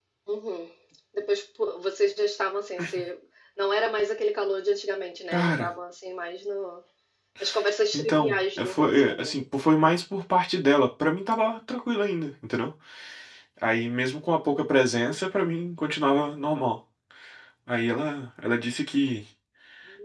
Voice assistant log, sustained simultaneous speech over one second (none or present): present